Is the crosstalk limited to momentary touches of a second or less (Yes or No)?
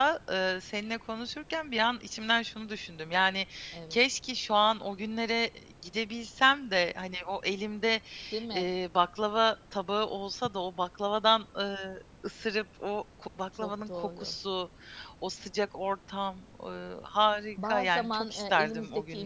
No